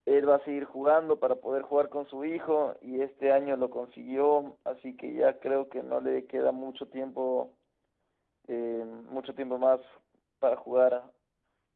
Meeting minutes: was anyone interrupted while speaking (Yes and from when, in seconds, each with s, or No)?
No